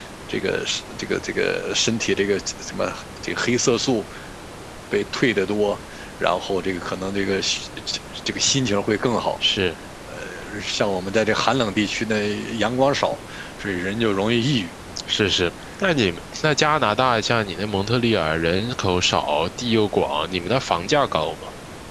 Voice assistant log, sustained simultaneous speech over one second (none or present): none